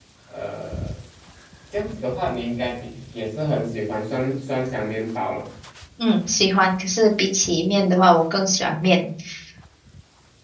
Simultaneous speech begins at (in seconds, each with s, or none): none